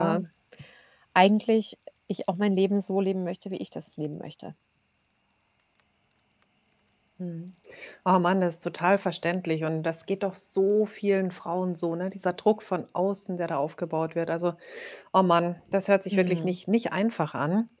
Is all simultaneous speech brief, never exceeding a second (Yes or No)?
Yes